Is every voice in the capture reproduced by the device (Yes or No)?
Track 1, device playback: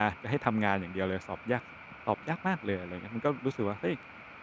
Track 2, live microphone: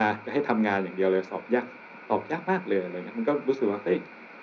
Yes